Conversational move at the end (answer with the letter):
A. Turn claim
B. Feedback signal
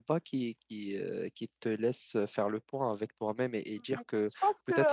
A